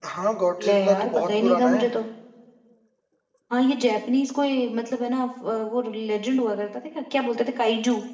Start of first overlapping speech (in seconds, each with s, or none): 0.7 s